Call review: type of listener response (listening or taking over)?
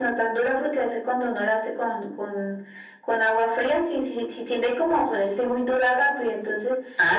listening